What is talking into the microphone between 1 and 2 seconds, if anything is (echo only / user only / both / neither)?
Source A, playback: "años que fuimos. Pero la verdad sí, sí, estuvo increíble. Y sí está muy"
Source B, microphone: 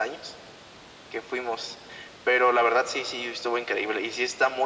echo only